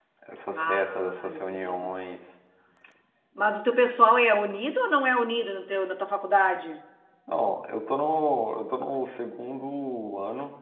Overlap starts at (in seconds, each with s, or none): 0.6 s